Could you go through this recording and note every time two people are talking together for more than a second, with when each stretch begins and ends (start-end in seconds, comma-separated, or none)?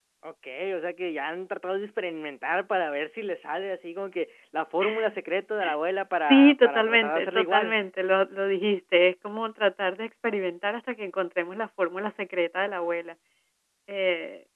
6.2-7.7